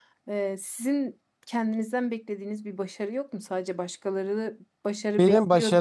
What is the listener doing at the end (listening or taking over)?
taking over